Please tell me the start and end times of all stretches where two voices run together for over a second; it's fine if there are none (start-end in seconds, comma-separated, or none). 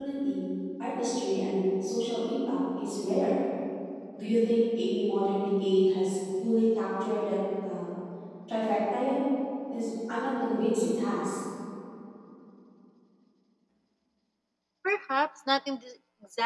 none